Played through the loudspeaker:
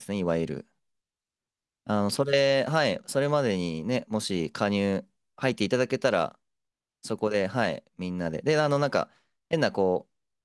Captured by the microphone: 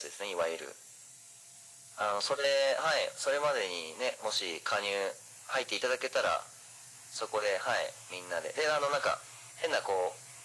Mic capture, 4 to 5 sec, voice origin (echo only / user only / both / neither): echo only